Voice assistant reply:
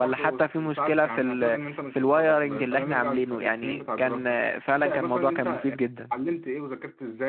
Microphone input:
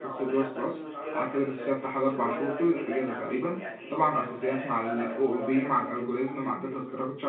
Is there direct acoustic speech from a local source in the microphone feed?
Yes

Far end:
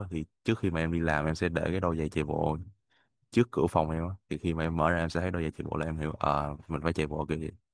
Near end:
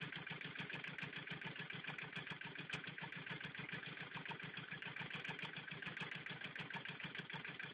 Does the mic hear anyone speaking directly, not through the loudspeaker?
No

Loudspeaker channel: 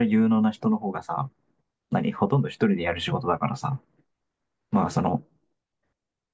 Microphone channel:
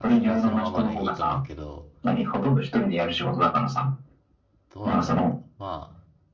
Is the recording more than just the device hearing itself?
Yes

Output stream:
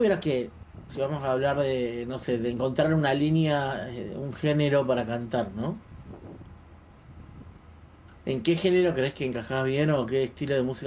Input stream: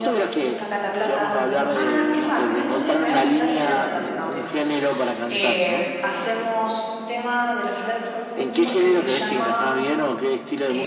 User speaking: Yes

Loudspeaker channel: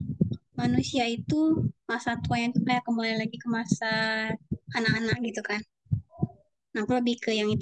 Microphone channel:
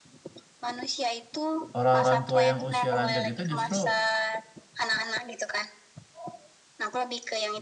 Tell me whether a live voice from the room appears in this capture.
Yes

